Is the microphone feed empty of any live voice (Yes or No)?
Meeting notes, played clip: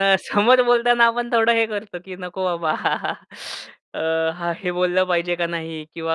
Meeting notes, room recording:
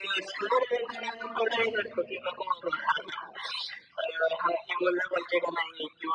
No